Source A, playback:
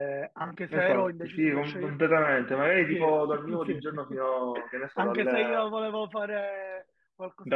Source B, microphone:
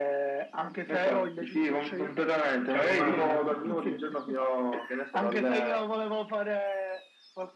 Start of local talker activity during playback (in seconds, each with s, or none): 2.7 s